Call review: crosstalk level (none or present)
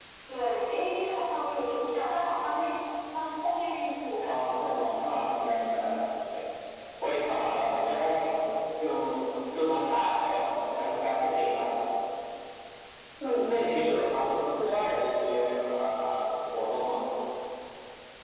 present